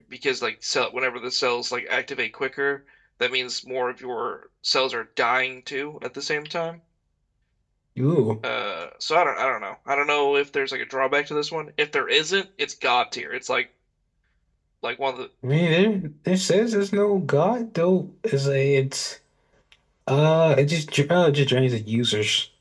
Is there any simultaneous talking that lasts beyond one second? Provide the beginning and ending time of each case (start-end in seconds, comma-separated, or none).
none